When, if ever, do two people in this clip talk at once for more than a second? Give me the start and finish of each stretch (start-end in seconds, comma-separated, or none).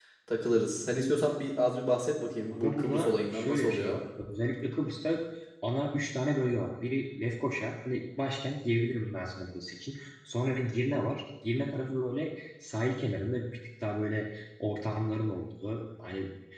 2.5-4.0